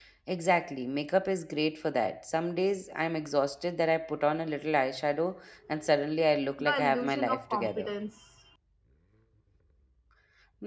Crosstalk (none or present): present